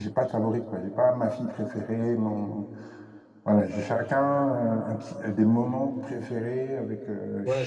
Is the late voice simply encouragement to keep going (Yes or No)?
No